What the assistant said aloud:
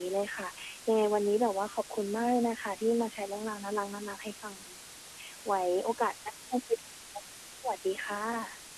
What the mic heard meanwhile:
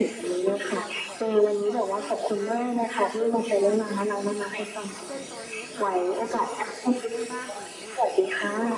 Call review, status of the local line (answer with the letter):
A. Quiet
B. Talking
B